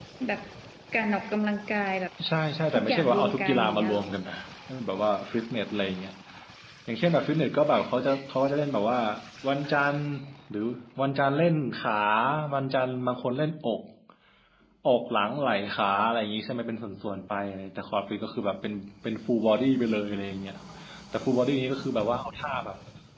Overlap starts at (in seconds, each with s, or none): 2.7 s